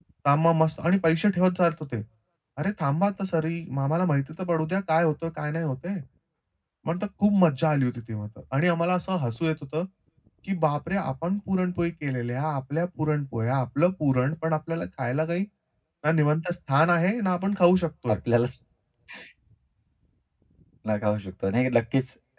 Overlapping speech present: No

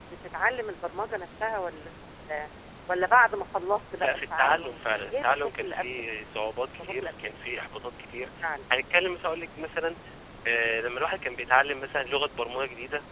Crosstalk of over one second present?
Yes, from 4.0 s

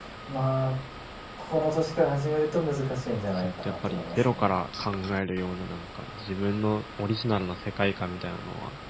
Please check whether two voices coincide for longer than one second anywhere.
Yes, from 3.1 s

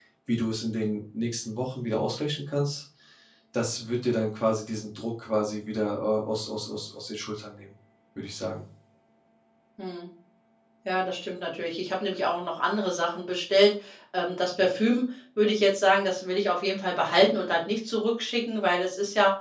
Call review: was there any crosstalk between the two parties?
No

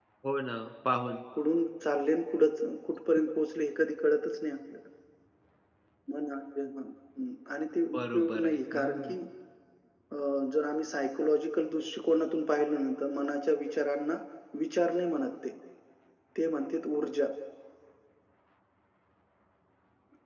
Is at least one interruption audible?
Yes, from 7.9 s

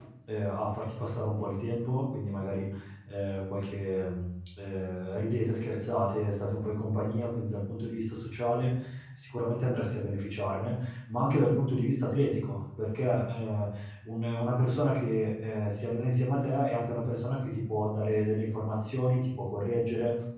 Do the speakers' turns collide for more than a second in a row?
No

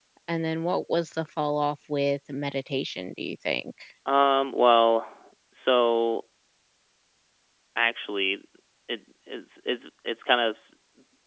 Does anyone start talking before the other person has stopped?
No

